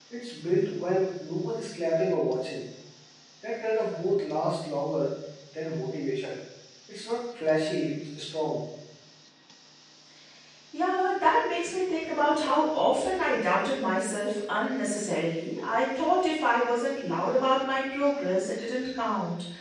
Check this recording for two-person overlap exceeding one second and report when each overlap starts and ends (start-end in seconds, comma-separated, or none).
none